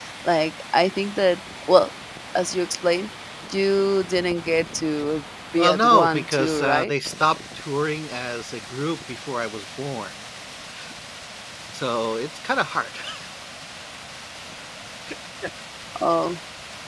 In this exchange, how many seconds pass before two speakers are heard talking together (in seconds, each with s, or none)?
5.6 s